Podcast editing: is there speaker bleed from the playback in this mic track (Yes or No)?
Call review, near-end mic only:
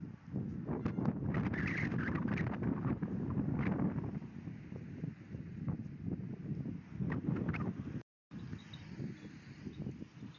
No